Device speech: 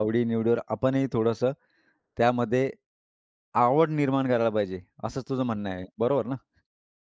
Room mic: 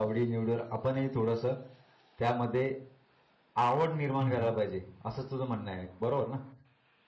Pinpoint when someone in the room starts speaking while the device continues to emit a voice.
4.2 s

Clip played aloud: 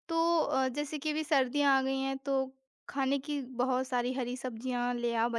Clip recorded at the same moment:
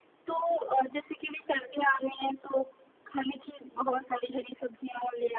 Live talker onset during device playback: none

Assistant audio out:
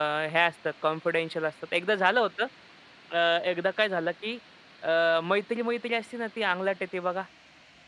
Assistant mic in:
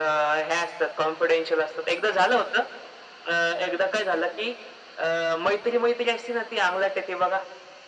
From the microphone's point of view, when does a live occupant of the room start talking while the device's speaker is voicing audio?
none

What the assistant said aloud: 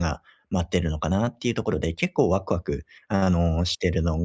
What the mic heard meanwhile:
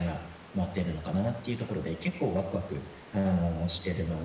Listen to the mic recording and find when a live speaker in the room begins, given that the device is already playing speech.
none

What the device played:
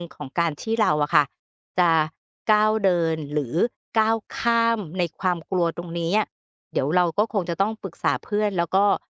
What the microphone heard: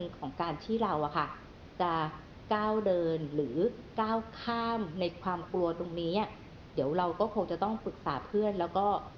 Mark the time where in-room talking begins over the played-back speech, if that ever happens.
none

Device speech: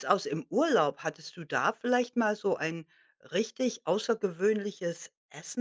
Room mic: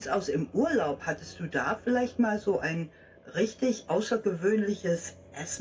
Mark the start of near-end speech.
none

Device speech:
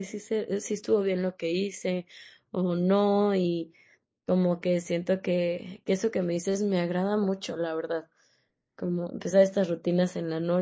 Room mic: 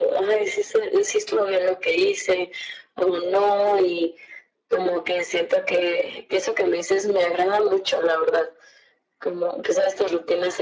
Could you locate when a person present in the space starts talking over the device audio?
none

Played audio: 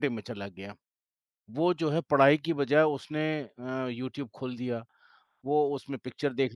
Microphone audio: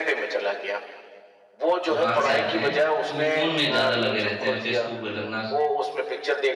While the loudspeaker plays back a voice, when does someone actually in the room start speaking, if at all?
1.9 s

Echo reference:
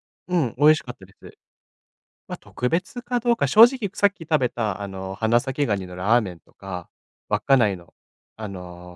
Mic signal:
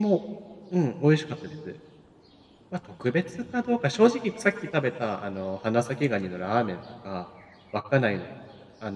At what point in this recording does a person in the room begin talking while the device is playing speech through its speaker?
none

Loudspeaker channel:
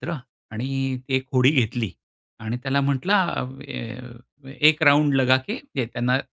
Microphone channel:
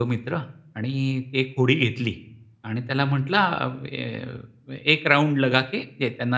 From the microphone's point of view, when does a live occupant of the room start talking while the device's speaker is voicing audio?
none

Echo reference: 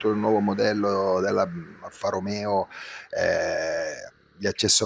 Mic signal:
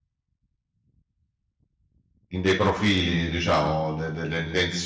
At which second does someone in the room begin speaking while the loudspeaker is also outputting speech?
2.3 s

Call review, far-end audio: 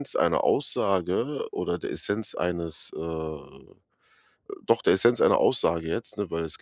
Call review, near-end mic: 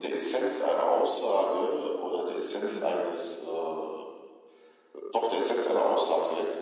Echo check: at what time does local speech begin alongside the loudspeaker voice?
2.7 s

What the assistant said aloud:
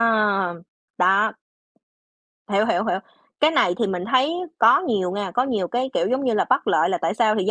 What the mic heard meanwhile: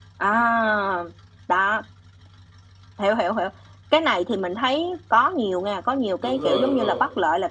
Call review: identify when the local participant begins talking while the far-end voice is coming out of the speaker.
6.1 s

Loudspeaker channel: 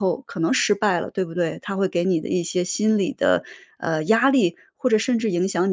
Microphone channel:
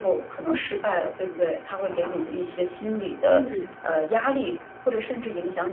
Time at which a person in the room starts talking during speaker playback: 3.2 s

